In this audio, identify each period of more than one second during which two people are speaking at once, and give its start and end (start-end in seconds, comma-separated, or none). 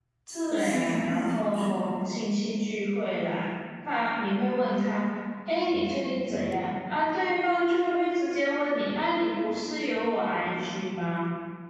0.5-1.9